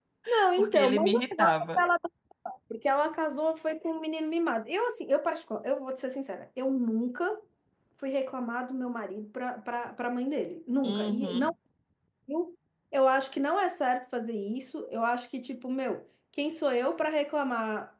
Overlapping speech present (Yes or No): Yes